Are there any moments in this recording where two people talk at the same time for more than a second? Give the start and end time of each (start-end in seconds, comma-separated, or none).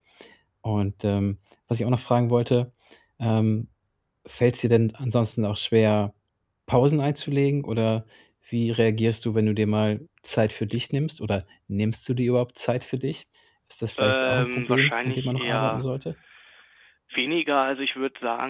14.0-15.8